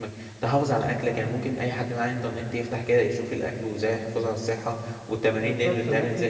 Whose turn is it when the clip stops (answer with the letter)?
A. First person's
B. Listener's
B